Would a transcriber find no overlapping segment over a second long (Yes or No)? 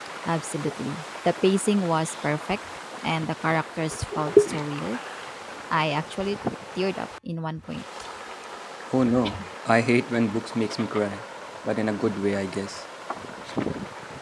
Yes